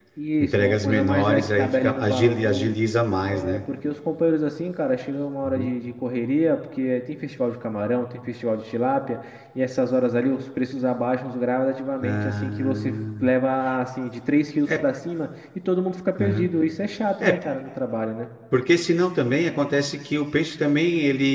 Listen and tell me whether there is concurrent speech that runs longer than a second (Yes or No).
Yes